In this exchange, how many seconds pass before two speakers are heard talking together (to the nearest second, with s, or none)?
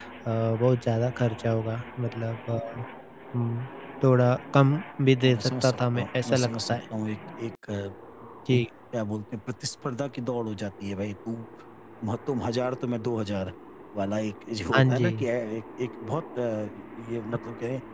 5 s